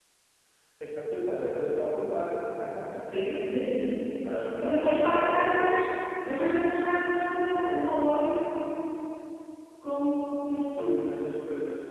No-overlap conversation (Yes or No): No